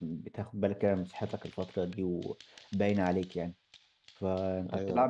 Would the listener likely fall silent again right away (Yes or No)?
Yes